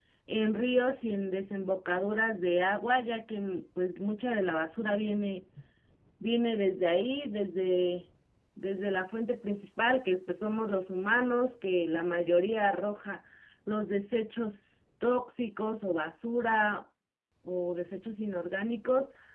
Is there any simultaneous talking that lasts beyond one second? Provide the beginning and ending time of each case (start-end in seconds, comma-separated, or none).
none